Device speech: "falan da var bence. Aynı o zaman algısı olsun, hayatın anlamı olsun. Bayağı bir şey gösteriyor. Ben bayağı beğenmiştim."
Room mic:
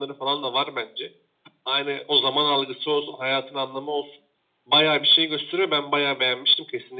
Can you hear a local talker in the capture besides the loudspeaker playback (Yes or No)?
No